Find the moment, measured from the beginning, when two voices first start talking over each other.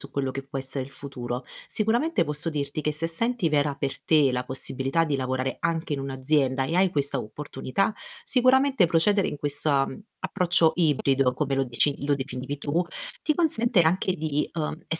none

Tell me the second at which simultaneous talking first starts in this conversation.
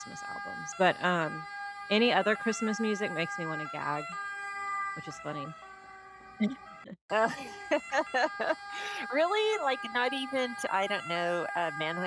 none

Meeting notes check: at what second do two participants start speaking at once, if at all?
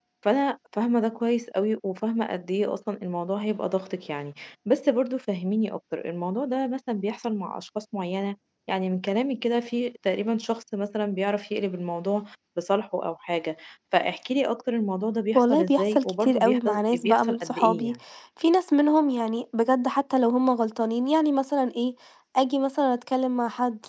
15.3 s

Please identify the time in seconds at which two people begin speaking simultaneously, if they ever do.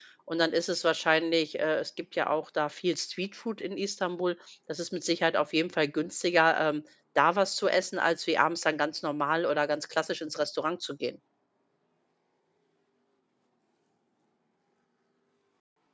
none

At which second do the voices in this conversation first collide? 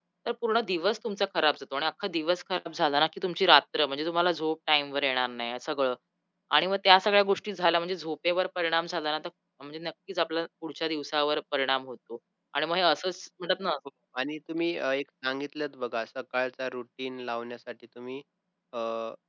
none

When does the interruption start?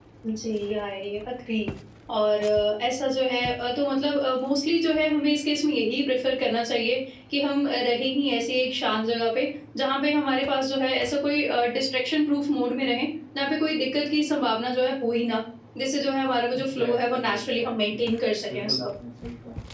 16.6 s

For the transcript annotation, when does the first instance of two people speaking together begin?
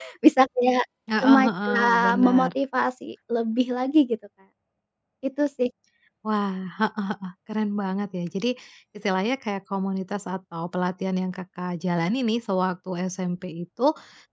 1.2 s

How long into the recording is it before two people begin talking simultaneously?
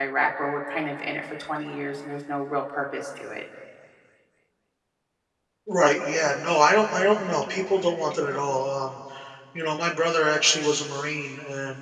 none

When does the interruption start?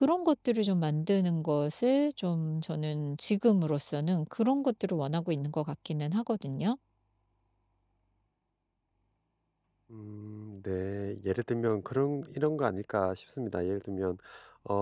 none

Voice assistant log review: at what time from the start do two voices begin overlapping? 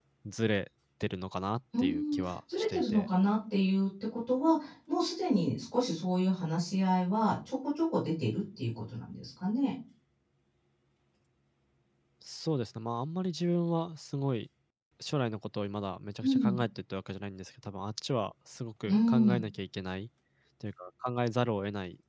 1.8 s

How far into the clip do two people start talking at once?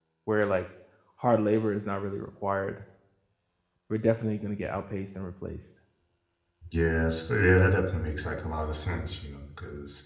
none

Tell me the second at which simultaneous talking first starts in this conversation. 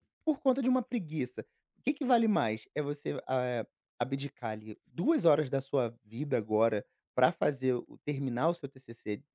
none

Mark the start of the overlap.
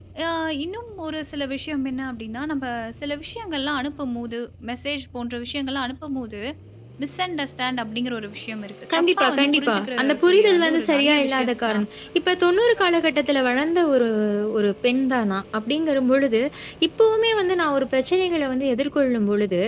8.9 s

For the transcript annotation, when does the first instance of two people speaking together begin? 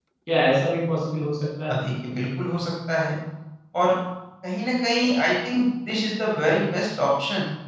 none

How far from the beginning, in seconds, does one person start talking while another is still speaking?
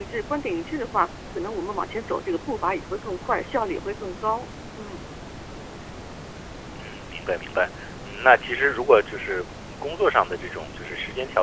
none

